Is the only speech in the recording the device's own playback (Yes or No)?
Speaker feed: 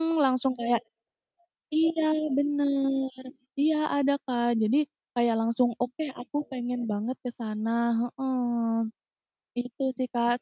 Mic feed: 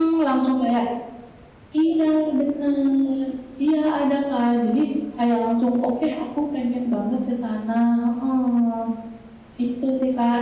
Yes